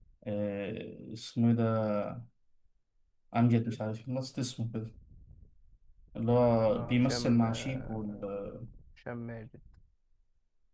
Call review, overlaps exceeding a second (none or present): present